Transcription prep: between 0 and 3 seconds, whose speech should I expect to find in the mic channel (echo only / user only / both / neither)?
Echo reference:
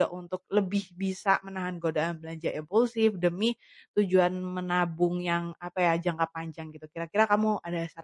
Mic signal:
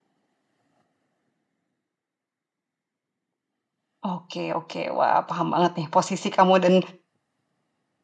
neither